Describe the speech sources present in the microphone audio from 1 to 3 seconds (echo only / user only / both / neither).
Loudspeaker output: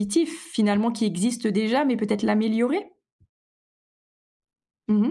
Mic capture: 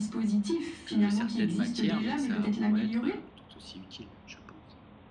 both